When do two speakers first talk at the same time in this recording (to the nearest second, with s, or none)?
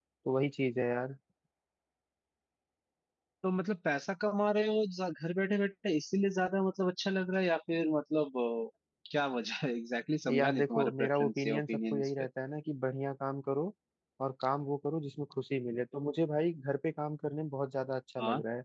10 s